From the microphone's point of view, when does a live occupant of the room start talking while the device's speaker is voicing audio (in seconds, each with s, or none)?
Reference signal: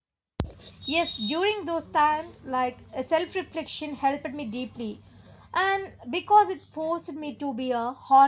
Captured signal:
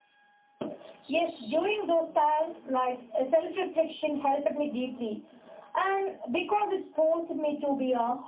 none